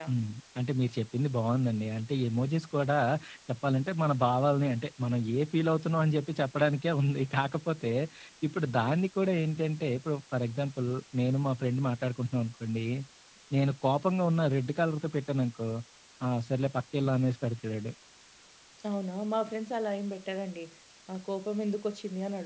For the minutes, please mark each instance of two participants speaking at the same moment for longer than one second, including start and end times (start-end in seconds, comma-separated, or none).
none